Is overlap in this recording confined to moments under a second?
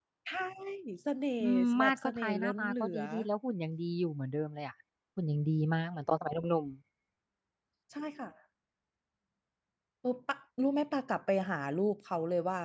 No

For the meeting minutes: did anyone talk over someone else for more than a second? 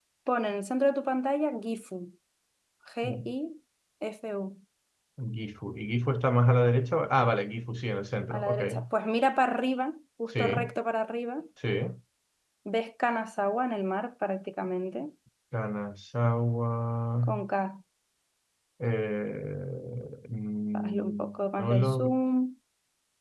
Yes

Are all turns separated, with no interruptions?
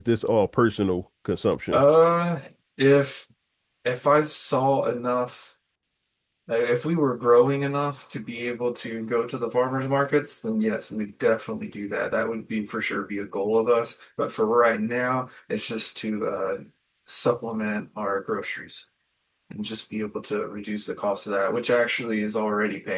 Yes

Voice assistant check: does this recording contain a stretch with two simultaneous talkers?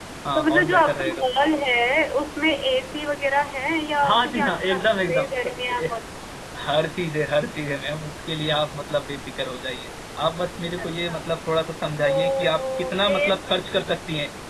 Yes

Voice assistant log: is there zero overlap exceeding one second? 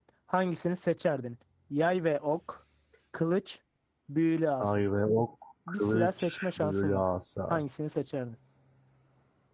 No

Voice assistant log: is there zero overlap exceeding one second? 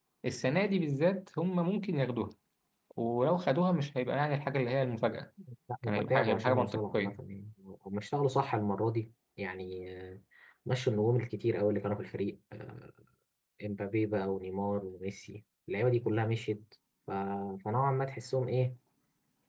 No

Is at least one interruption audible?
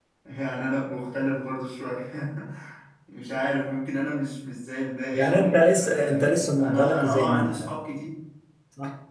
Yes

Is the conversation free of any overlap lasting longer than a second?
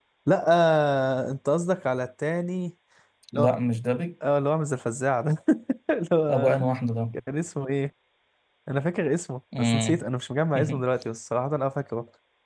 Yes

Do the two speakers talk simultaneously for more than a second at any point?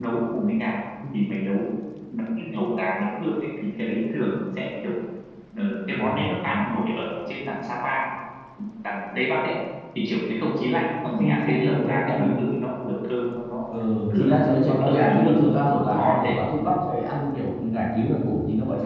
Yes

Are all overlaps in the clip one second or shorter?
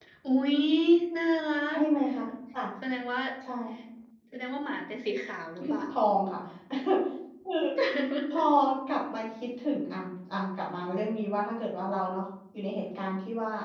Yes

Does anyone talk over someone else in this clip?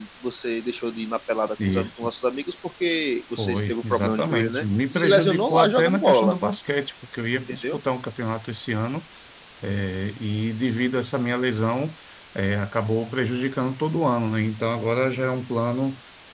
Yes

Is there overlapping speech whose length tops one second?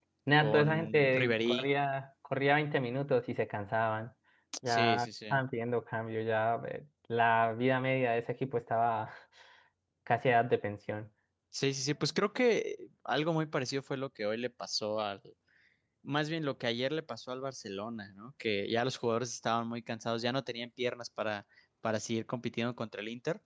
Yes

